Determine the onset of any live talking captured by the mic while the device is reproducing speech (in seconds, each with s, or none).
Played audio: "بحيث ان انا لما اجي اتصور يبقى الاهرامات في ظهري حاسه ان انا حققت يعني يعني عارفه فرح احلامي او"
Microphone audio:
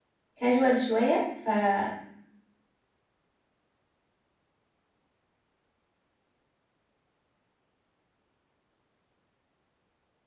0.4 s